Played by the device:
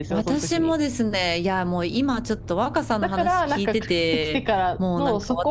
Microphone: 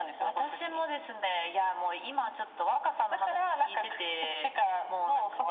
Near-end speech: none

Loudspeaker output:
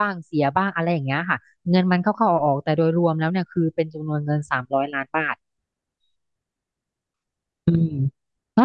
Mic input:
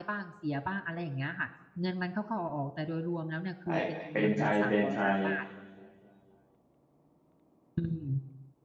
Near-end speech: present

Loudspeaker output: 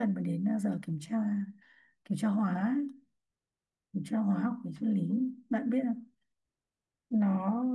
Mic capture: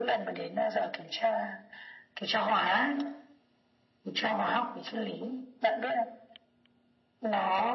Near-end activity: none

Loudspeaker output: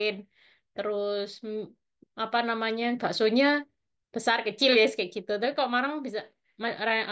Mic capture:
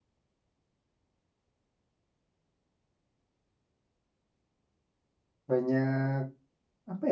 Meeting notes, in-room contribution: present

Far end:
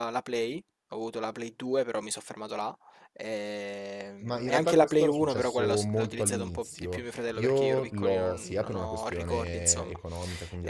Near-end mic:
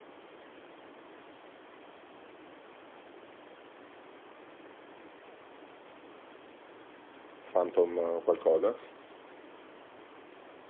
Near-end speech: present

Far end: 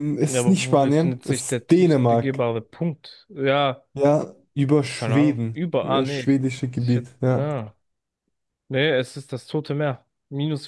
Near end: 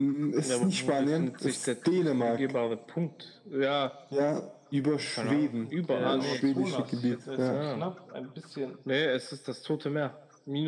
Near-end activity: present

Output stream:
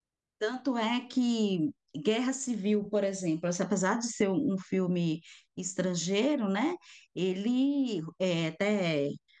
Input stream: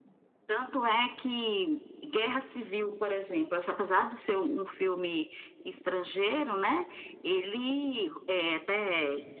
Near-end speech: none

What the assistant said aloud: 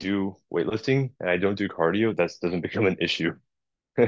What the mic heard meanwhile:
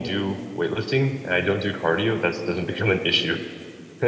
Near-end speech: none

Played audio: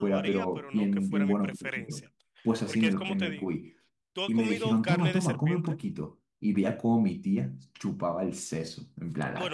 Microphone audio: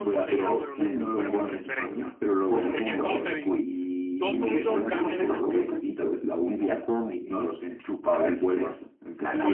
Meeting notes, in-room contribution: present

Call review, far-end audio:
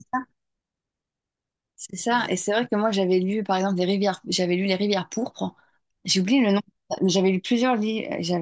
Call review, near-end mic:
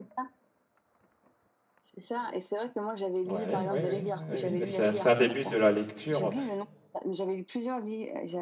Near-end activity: present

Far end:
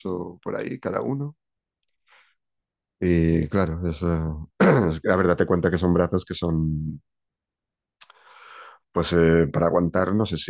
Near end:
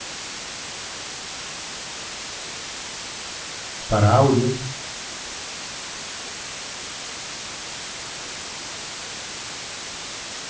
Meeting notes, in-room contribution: present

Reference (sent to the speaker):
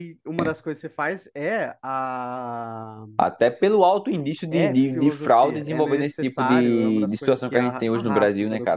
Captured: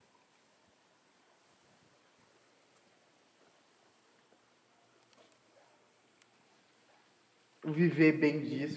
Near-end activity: present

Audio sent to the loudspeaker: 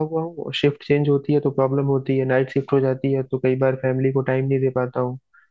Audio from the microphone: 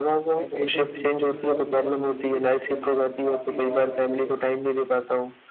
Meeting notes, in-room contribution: present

